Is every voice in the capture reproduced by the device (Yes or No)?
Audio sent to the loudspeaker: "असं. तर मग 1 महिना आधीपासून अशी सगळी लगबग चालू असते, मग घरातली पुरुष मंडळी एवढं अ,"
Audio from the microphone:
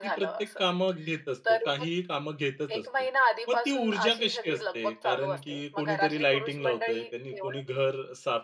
No